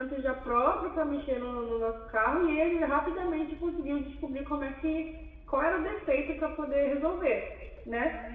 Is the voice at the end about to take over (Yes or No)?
No